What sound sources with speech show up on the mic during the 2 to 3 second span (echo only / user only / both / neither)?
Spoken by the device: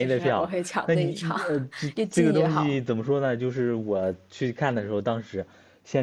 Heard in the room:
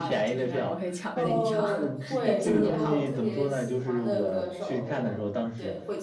both